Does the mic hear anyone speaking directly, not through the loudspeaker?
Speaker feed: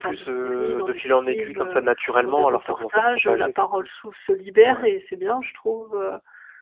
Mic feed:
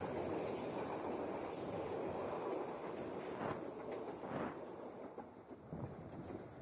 No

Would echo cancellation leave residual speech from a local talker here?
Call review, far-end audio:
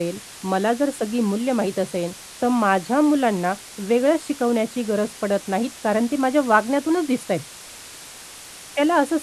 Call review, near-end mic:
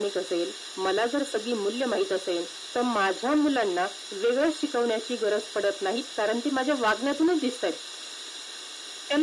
No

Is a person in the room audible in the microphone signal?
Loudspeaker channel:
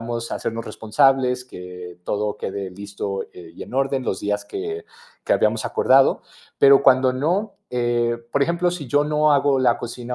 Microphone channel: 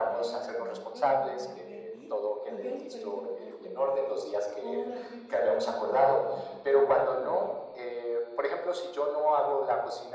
Yes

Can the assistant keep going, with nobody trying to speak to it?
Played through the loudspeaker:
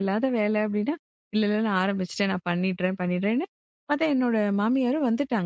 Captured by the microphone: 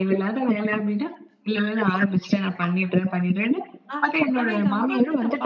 No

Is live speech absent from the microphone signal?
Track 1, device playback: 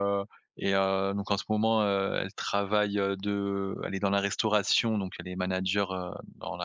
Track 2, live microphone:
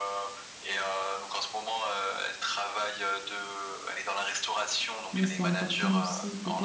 No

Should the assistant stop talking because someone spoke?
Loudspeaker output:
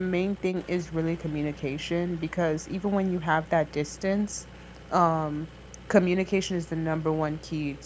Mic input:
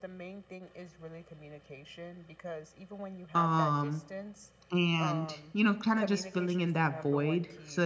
Yes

